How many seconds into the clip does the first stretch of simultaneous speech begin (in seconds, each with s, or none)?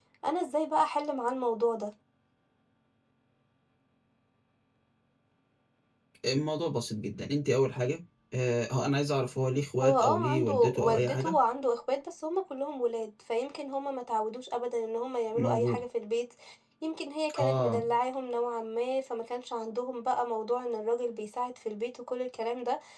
9.8 s